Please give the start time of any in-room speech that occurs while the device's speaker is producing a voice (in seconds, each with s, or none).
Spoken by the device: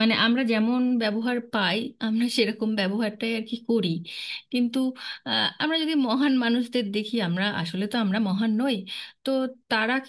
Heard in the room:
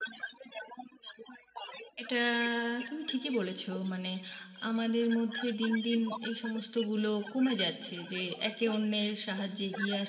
2.0 s